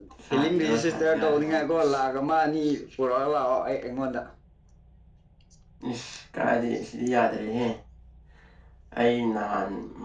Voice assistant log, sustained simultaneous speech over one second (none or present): present